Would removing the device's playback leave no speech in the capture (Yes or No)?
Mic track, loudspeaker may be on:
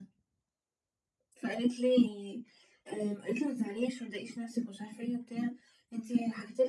Yes